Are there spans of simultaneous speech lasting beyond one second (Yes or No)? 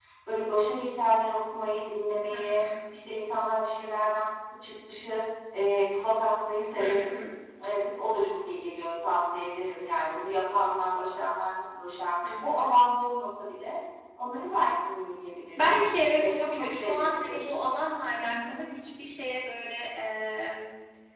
Yes